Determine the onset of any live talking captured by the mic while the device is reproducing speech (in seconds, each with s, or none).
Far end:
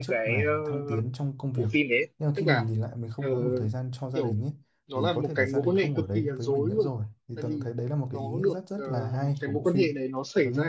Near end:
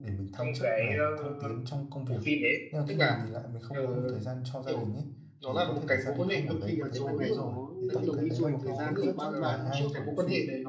6.6 s